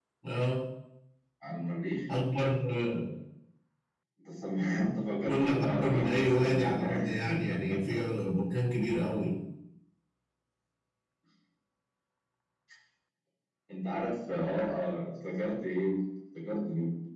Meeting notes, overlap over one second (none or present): present